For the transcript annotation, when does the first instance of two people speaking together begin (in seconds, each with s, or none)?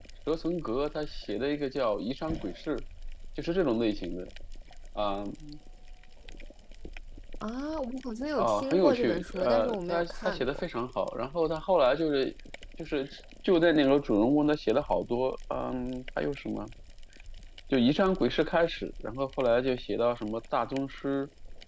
8.4 s